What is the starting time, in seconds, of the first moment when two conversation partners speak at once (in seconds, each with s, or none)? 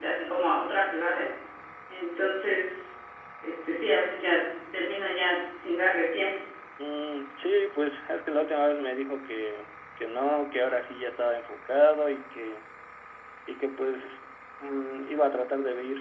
none